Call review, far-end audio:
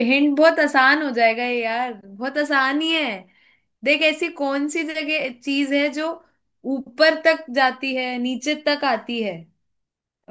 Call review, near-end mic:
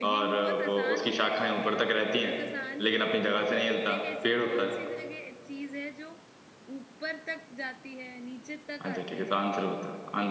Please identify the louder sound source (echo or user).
user